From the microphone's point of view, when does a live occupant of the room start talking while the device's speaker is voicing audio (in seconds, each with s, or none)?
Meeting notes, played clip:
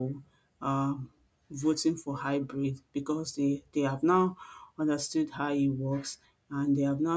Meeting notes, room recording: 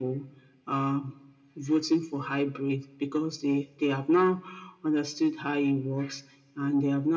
none